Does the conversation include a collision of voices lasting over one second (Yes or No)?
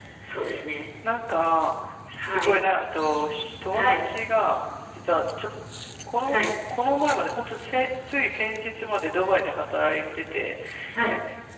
No